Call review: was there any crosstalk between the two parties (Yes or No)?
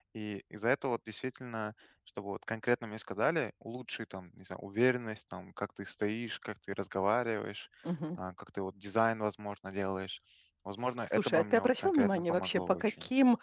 Yes